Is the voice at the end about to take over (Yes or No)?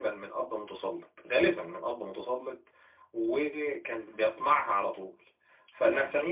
No